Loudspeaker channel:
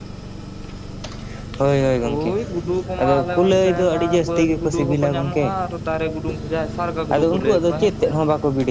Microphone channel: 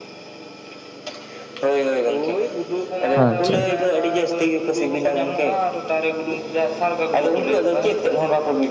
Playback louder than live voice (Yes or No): No